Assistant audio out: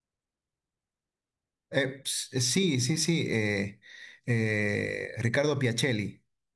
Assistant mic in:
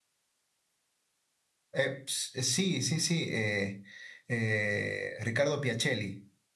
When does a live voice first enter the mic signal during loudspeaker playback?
none

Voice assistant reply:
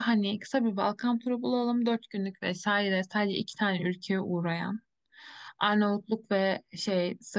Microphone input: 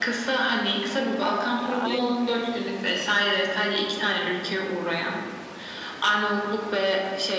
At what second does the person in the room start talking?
2 s

